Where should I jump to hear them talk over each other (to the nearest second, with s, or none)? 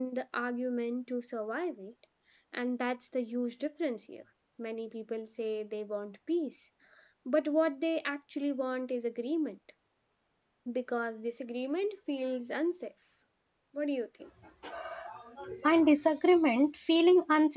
none